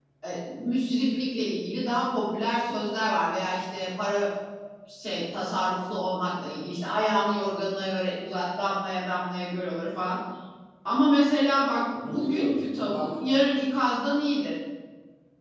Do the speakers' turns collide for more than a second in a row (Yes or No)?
Yes